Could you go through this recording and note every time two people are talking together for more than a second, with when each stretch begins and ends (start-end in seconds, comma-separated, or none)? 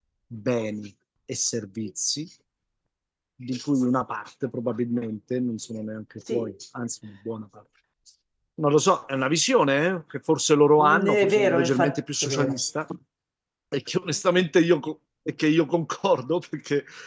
10.8-12.6